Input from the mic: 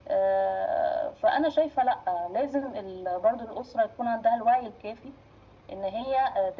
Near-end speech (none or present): none